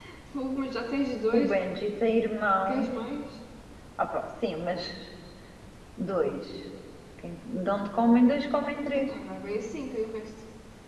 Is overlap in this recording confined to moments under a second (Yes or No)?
Yes